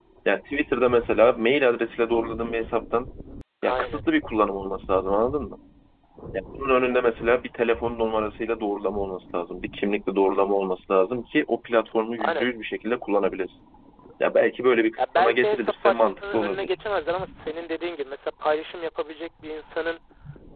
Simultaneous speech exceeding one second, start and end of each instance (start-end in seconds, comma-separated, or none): 15.0-16.7